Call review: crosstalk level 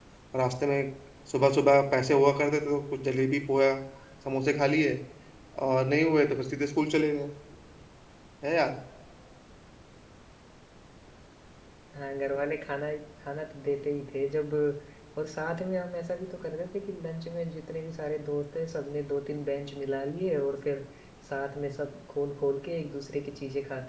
none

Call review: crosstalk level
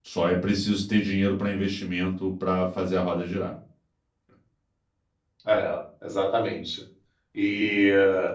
none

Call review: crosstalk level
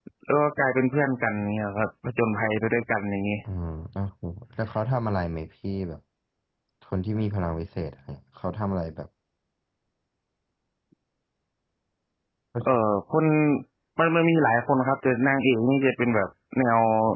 none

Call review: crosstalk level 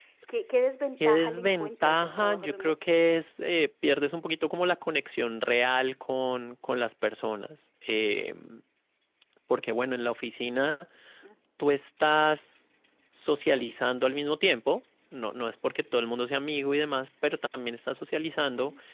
present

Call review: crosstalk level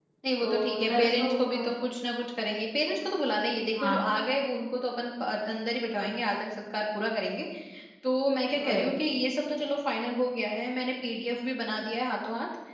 present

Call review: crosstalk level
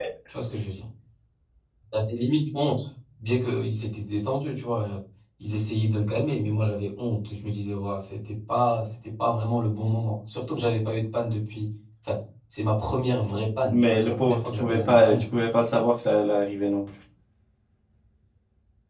present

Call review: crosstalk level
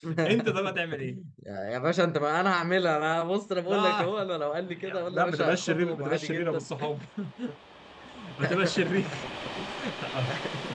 present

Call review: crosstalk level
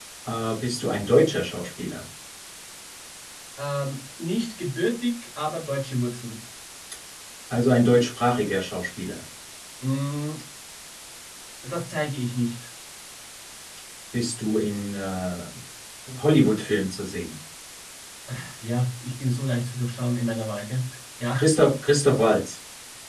none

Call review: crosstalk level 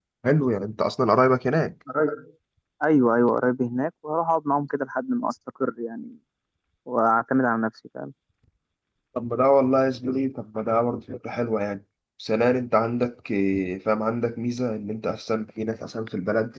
none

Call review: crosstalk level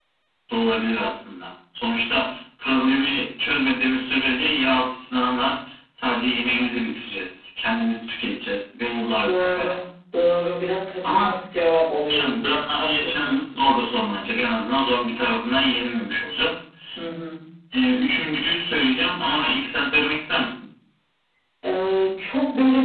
present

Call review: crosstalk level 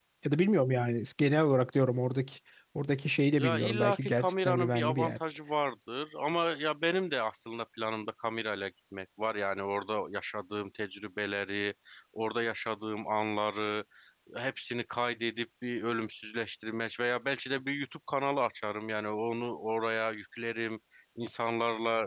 present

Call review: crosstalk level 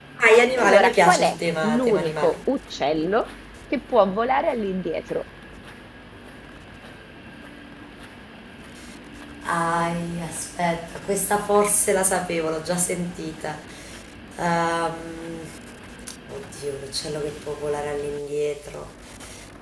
present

